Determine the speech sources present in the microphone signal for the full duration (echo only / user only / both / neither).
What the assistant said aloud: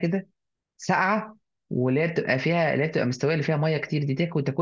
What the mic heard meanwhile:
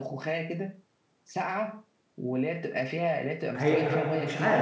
both